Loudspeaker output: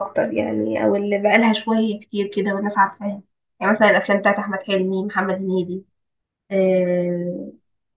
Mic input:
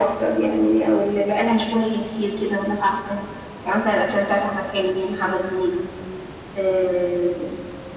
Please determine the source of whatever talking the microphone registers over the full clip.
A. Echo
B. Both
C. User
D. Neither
A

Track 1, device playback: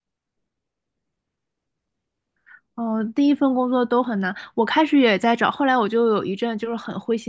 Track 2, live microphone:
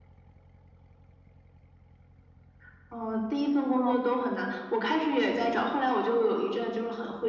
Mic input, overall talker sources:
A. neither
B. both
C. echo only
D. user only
B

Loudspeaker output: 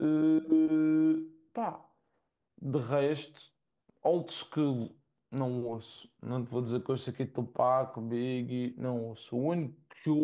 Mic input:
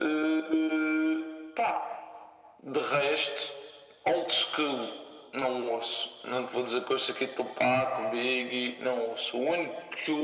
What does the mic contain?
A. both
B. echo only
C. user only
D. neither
B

